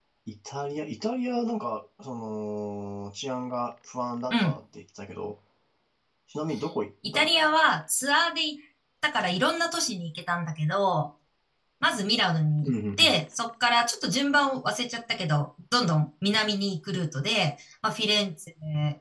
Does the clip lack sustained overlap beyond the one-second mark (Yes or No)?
Yes